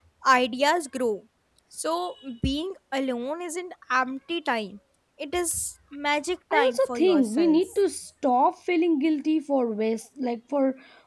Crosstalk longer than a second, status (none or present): present